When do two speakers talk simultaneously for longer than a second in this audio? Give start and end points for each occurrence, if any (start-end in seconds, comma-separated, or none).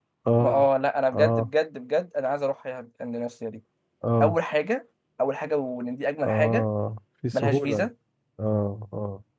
none